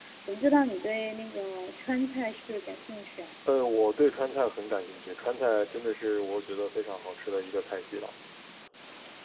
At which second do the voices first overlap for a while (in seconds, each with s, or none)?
none